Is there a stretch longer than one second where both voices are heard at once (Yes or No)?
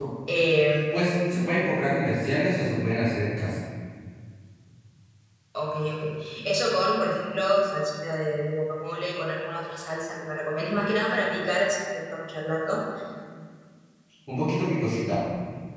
No